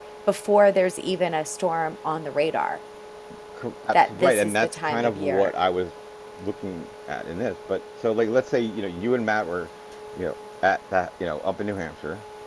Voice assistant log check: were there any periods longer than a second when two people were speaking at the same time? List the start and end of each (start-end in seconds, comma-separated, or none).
3.9-5.5